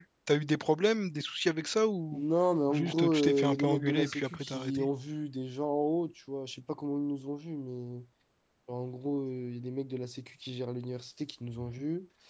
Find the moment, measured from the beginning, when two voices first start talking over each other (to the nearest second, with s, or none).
3 s